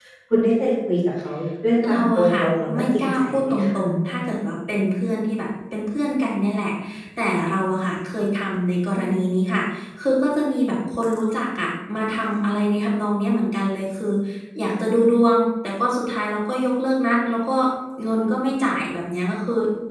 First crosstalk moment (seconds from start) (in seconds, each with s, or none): 1.8 s